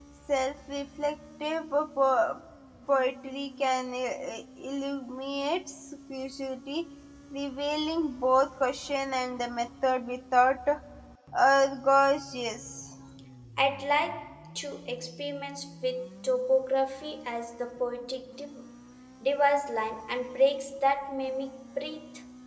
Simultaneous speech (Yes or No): No